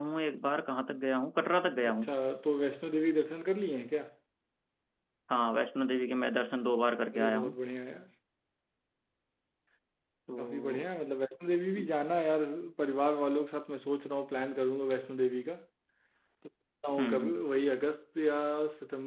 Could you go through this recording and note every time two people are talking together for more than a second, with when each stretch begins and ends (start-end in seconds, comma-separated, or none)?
none